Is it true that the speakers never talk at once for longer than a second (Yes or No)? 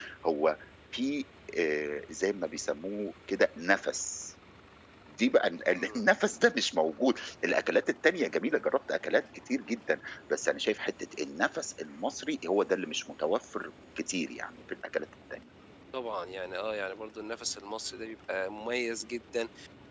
Yes